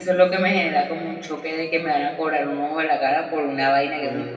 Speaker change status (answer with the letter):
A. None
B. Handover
B